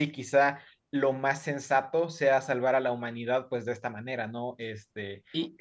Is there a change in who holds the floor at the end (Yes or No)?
Yes